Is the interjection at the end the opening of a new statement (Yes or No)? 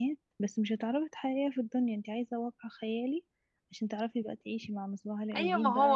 Yes